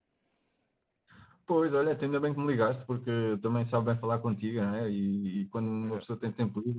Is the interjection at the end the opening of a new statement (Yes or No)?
No